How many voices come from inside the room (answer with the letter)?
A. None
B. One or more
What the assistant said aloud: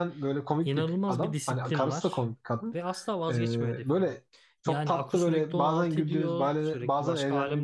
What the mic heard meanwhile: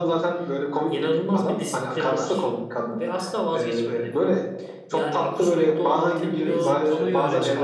B